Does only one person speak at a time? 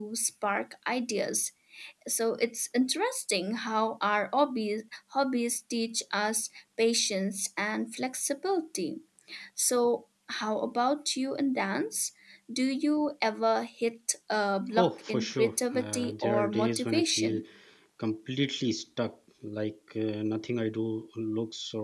No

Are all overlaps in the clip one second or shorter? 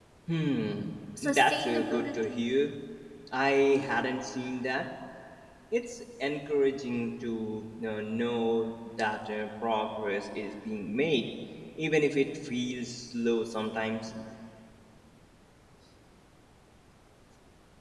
No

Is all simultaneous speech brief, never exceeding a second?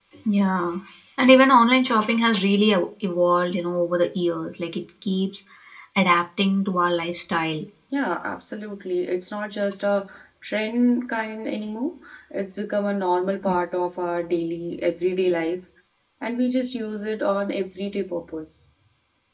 Yes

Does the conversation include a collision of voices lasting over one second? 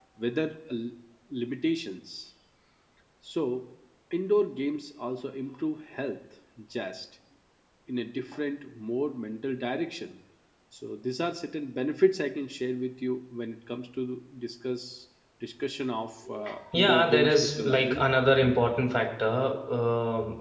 Yes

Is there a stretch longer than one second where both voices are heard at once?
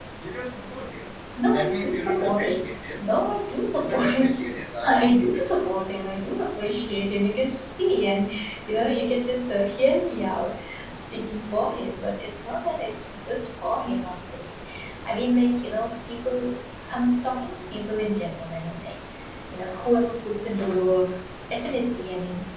Yes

